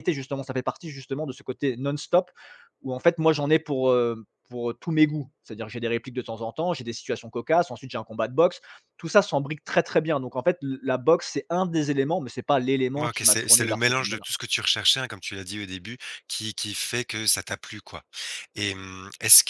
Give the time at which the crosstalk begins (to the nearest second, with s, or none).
13 s